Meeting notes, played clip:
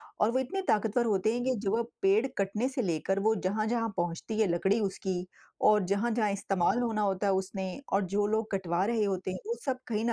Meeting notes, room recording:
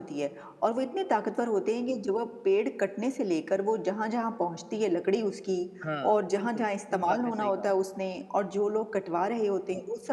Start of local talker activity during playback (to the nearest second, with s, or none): 6 s